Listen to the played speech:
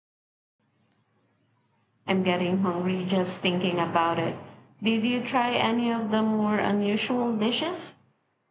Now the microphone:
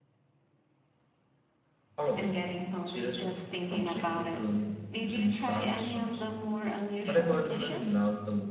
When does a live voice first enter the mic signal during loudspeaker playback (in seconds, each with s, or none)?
2.0 s